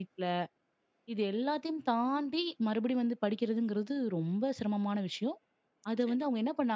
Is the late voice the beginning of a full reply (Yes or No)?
No